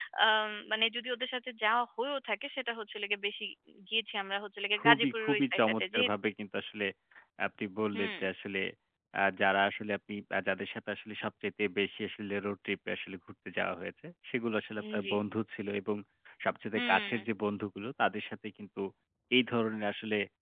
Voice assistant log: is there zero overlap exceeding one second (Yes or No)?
No